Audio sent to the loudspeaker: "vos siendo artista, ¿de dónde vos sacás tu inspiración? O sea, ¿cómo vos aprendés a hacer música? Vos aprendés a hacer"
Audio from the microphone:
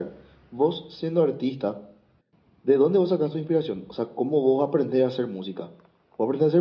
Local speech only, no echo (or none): none